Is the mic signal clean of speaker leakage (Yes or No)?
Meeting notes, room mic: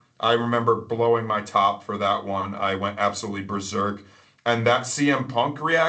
Yes